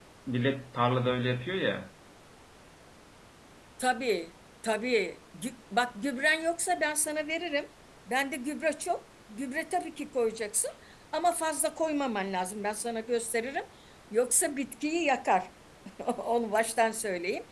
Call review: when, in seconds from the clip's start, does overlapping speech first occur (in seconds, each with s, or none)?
none